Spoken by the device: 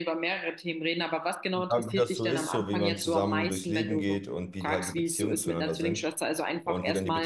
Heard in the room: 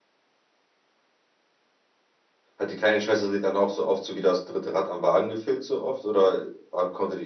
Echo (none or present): none